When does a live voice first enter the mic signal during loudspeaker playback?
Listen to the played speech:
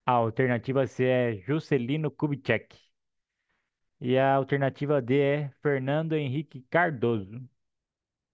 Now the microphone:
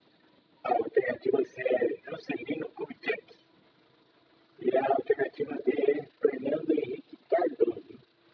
none

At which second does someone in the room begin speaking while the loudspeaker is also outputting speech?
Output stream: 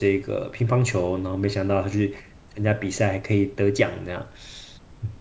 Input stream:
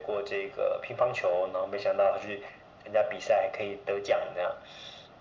none

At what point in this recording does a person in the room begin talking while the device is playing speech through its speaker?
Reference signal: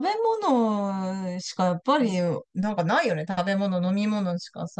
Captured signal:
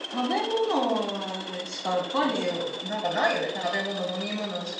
none

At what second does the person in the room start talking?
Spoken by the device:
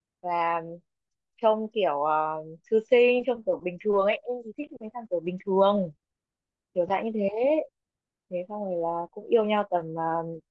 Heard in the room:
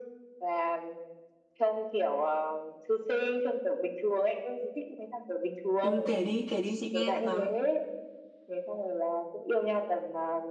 5.8 s

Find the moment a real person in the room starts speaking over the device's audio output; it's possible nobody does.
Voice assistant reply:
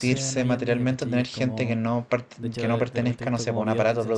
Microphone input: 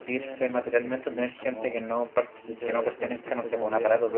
none

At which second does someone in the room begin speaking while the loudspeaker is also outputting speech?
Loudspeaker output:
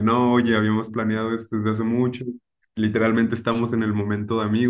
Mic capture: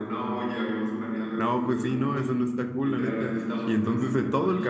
1.3 s

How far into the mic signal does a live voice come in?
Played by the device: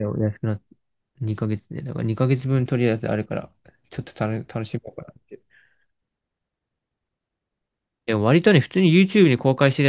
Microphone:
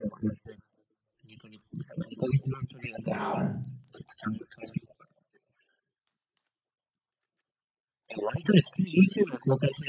3.1 s

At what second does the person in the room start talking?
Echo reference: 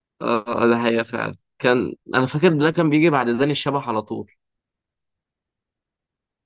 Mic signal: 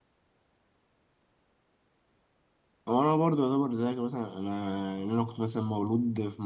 2.9 s

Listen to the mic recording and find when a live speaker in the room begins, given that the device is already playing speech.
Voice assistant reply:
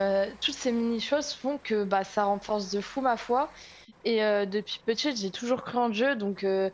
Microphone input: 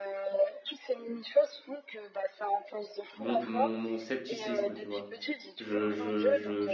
3.1 s

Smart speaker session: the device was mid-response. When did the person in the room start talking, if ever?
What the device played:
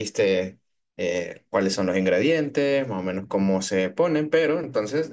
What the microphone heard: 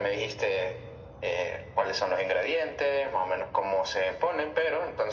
none

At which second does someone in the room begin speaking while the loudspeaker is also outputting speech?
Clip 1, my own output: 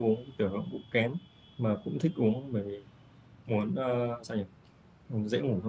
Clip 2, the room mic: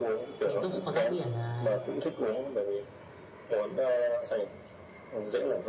0.4 s

